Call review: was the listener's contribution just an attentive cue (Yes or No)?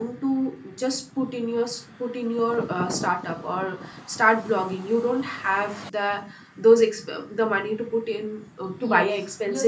No